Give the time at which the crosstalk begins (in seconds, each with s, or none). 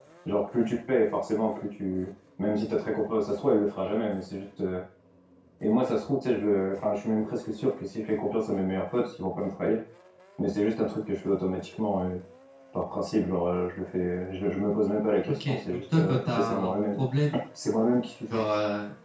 15.3 s